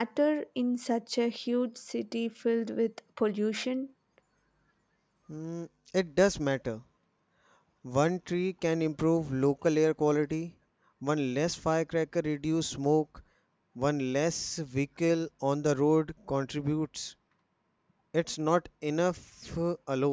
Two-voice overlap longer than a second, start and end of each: none

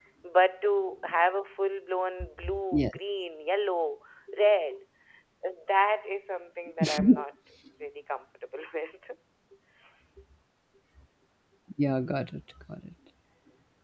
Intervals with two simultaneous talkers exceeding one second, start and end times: none

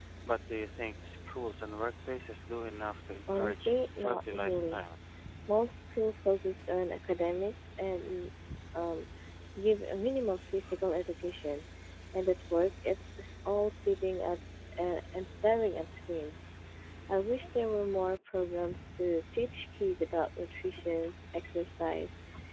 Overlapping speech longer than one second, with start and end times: 3.3-4.8

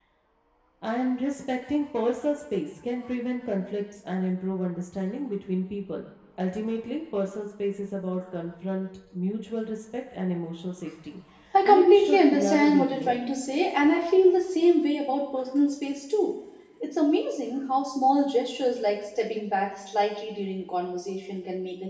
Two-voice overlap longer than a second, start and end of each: 11.6-13.2

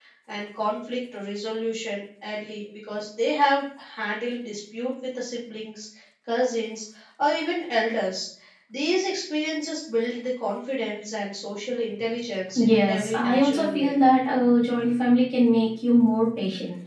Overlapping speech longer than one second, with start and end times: 12.6-13.9

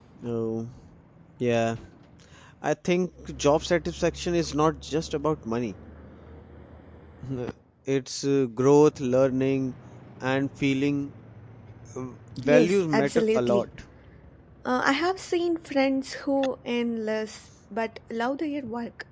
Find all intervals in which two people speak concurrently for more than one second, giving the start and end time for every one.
12.4-13.7

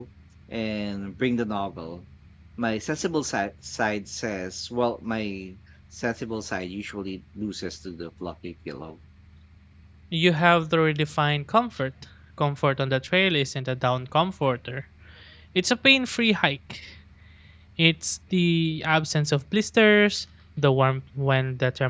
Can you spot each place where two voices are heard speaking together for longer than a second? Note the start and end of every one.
none

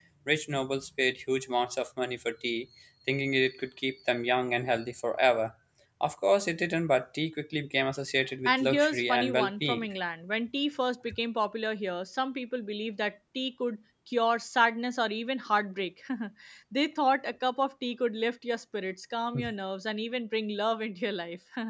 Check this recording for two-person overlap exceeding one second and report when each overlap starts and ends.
8.4-9.8

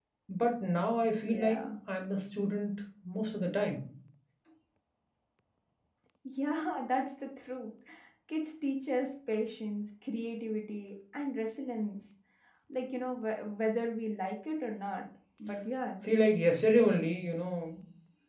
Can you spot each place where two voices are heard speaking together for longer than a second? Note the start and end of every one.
none

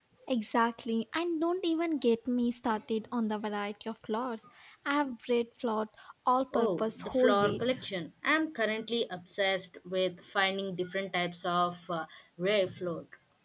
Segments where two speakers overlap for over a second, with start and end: 6.5-7.8

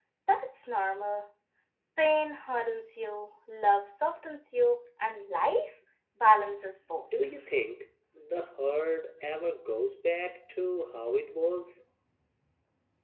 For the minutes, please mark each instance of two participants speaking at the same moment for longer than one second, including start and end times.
none

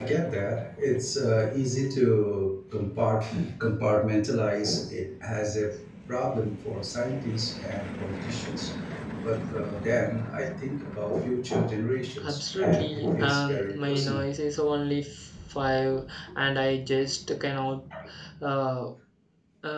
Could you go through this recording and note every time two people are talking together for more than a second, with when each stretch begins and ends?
12.2-14.2

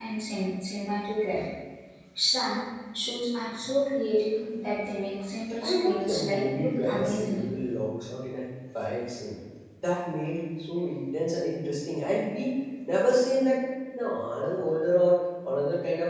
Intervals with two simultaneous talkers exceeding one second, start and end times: 5.6-7.4

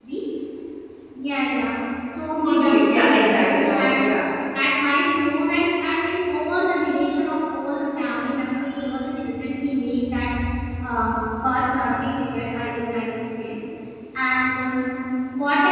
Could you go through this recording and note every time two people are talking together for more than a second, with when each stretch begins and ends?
2.4-4.1

